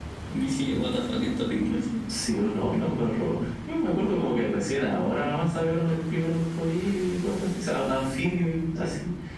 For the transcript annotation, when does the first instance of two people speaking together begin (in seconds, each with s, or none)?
none